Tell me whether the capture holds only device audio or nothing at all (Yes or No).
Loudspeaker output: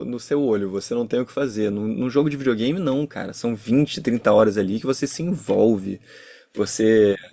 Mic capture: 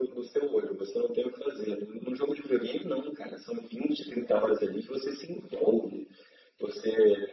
Yes